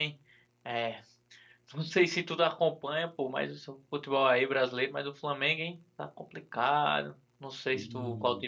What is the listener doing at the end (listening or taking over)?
listening